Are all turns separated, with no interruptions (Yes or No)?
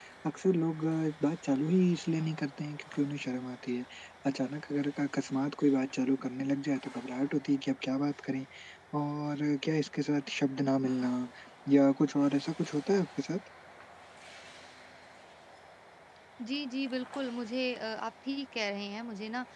Yes